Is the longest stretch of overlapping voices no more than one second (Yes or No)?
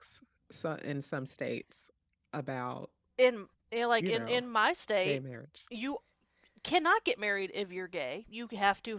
Yes